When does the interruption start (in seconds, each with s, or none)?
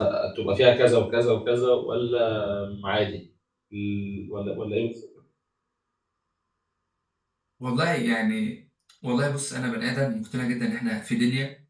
none